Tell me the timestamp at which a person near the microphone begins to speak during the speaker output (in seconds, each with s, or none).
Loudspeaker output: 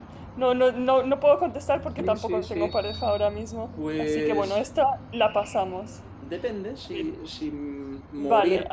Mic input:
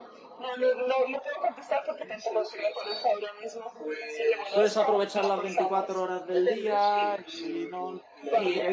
4.5 s